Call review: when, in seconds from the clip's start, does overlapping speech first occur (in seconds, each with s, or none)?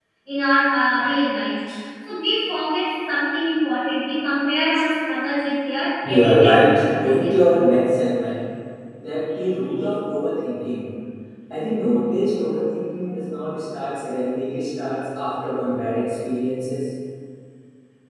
6.0 s